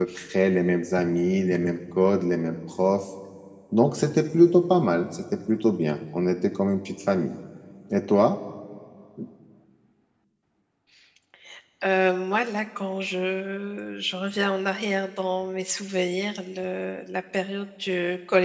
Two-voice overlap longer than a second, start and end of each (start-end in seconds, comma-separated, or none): none